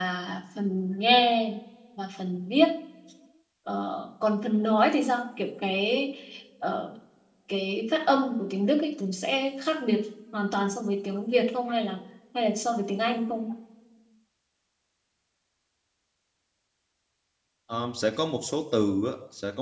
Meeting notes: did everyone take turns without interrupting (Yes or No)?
Yes